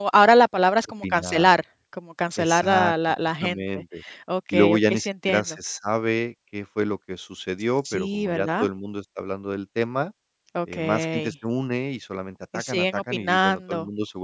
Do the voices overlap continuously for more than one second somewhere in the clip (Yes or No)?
Yes